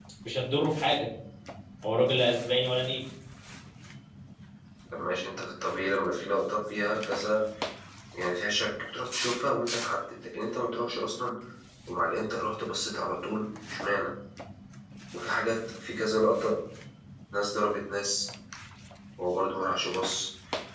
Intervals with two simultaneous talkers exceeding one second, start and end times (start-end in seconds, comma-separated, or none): none